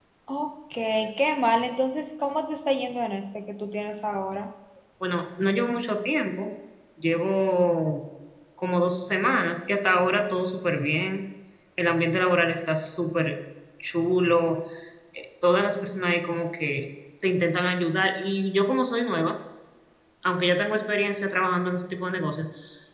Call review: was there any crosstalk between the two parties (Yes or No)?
No